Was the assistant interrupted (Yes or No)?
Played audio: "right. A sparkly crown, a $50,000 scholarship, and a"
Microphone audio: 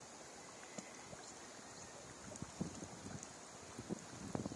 No